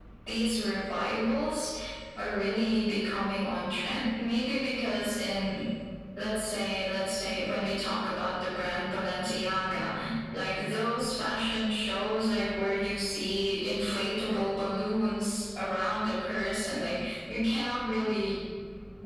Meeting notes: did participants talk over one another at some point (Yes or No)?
No